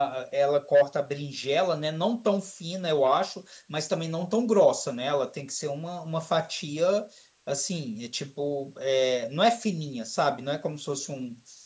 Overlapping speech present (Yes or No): No